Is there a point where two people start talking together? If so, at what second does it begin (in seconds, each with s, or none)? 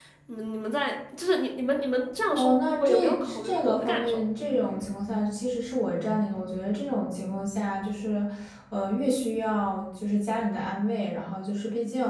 2.3 s